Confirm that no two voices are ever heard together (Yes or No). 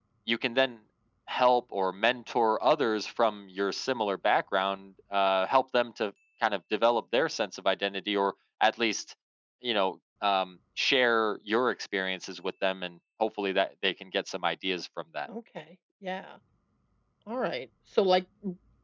Yes